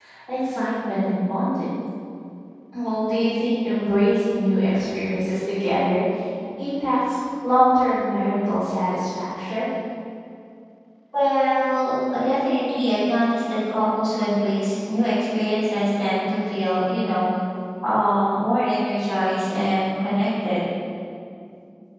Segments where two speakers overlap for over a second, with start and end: none

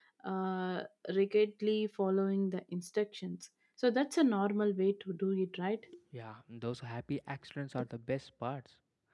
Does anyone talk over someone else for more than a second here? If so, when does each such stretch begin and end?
none

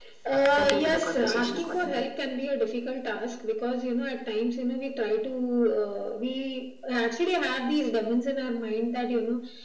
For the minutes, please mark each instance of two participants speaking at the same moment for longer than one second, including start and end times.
0.6-2.1

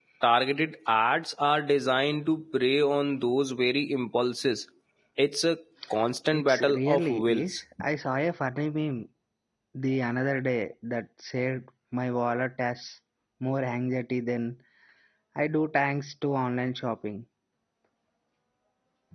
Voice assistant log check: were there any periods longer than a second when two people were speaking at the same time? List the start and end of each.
6.3-7.6

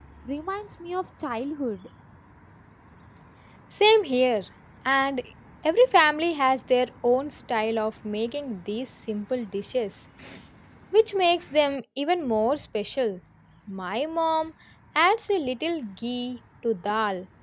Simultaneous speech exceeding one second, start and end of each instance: none

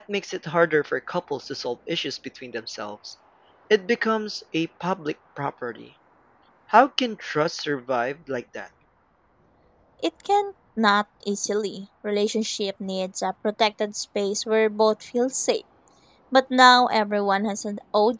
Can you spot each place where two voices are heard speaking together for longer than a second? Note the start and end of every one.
none

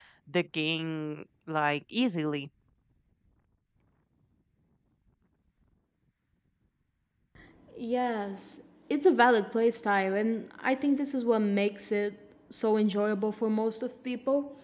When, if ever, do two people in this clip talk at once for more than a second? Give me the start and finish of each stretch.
none

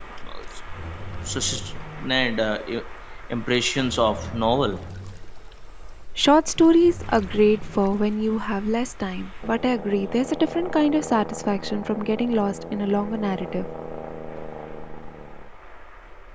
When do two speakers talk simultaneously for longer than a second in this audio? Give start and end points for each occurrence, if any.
none

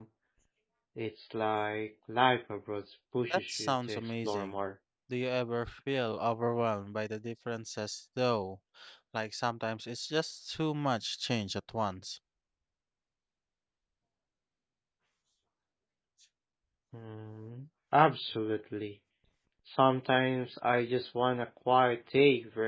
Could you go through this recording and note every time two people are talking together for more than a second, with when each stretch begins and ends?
3.3-4.6

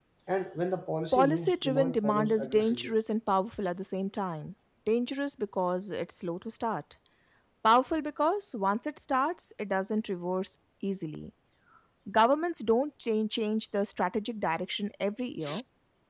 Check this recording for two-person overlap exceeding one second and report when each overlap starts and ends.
1.1-2.9

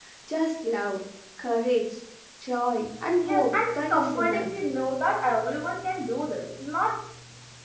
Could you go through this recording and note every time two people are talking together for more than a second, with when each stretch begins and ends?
3.2-4.5

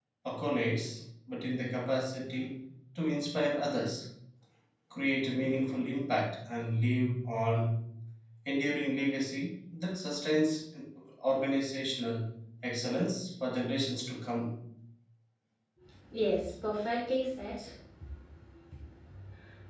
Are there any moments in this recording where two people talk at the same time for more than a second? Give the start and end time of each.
none

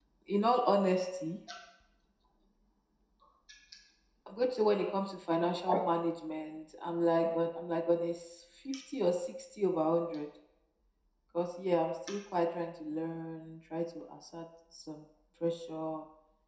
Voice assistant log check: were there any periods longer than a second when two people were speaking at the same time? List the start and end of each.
none

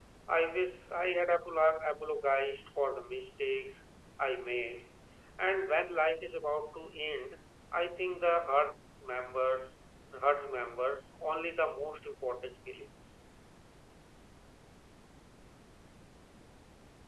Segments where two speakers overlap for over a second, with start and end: none

